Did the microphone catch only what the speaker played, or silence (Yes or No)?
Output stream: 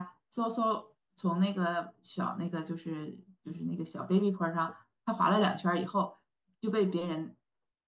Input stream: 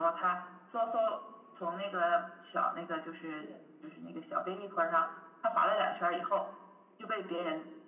No